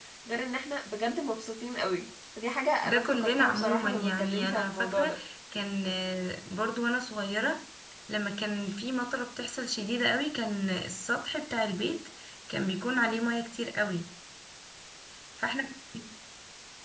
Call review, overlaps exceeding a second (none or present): present